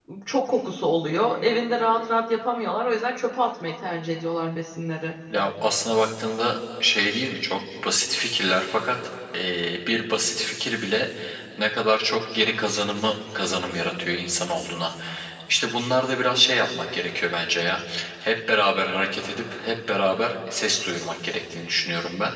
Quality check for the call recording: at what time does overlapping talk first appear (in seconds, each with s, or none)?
none